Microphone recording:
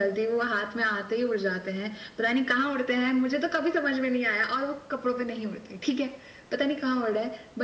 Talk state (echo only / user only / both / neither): echo only